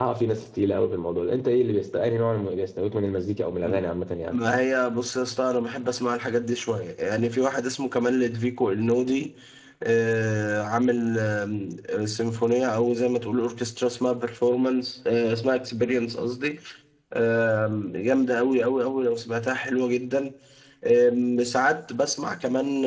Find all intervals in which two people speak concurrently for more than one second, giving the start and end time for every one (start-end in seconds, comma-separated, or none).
none